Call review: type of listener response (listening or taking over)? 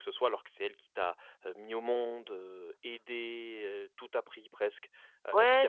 taking over